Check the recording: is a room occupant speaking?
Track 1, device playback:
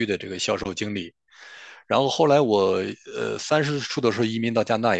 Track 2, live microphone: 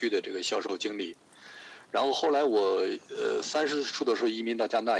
No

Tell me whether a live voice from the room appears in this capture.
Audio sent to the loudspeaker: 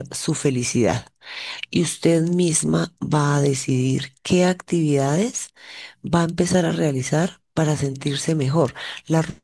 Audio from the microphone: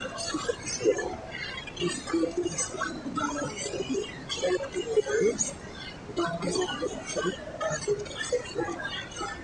No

